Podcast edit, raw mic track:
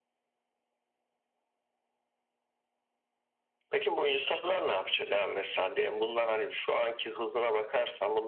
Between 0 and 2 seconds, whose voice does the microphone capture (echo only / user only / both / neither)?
neither